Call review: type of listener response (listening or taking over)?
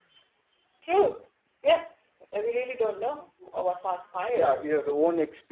taking over